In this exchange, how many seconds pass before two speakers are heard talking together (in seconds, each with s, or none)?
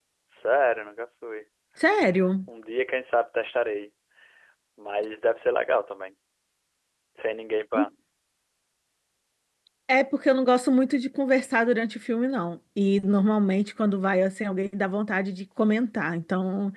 none